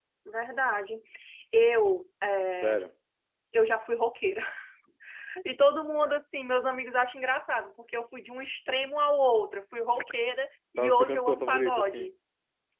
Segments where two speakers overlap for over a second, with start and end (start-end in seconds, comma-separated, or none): 10.8-12.1